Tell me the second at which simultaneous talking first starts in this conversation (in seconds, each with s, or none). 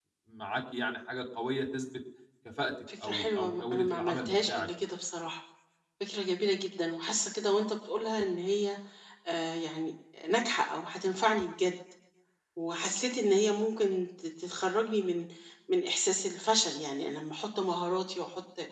3.0 s